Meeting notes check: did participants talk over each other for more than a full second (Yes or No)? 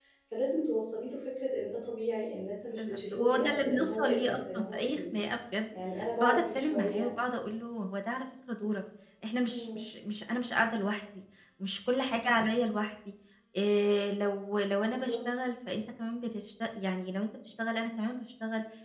Yes